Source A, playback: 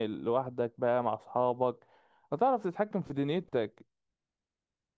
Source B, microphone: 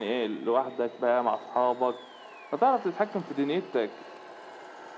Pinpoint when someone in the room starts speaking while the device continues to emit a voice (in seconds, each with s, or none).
none